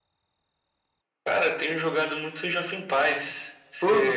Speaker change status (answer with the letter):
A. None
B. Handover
B